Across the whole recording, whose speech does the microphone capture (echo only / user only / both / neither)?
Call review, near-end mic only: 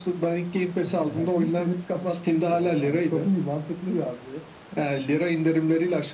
echo only